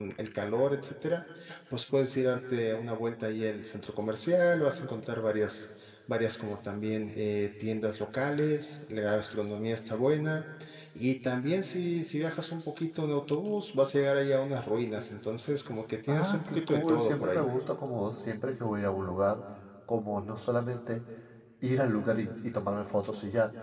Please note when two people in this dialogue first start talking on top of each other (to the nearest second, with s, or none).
16 s